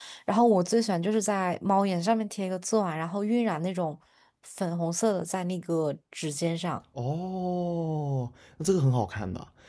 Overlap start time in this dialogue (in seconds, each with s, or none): none